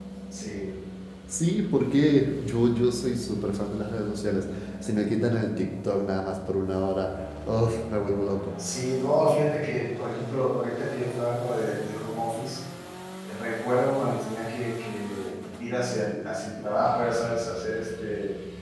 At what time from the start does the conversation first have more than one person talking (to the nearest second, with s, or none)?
none